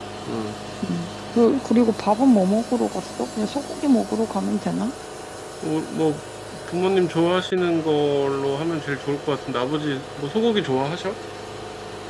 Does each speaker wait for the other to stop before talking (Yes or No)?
Yes